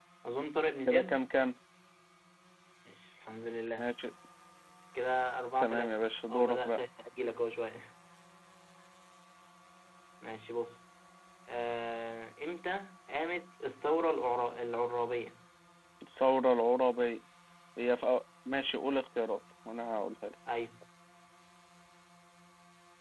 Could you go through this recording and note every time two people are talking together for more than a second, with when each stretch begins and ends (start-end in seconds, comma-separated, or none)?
5.6-6.8